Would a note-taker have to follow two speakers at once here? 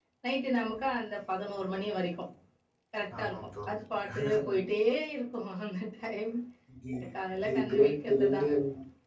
Yes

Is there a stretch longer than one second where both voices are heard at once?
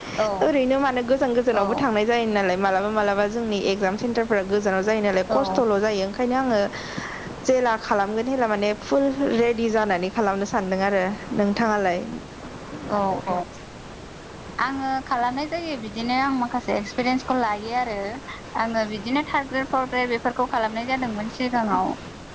No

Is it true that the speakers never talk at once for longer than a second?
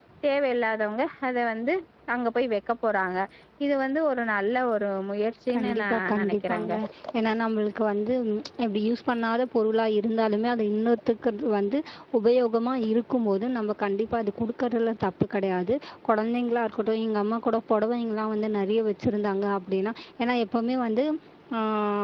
No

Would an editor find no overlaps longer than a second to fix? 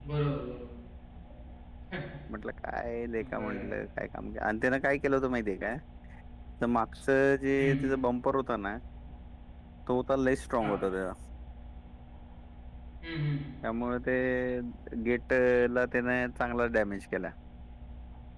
Yes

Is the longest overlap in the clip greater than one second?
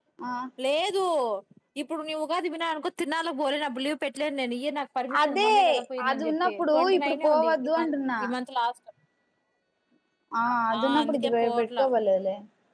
Yes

